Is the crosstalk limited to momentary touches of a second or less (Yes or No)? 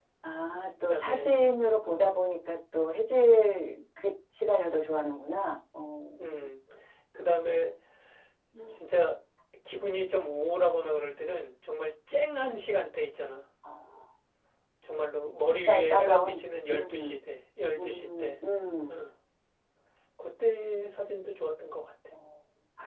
No